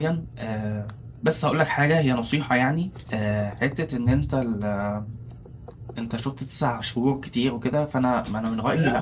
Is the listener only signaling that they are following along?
No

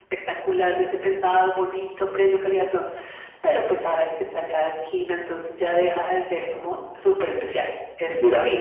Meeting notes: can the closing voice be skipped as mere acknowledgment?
No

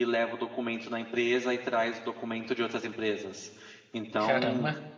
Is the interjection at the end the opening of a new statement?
No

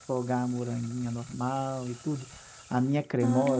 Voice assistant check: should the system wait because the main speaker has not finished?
Yes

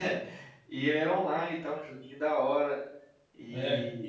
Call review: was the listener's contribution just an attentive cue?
Yes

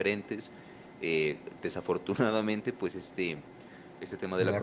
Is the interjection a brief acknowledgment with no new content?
Yes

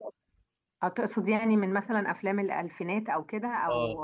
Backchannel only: No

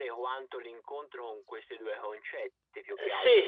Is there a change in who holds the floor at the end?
Yes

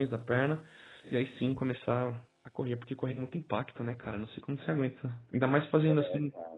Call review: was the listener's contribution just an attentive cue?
Yes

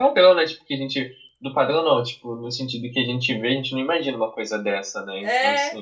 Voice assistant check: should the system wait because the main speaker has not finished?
No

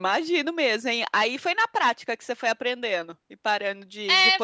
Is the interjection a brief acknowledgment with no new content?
No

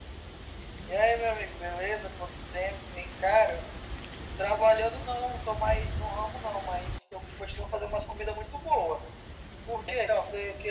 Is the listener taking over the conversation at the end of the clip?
Yes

